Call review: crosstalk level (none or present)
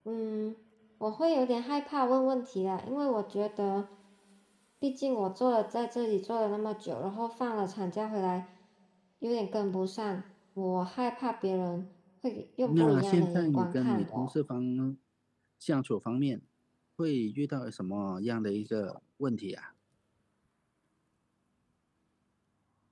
present